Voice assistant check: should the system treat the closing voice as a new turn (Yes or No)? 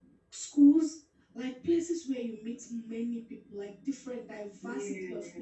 No